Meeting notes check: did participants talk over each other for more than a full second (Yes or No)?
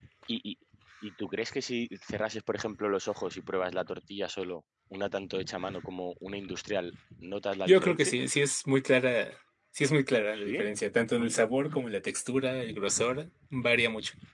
No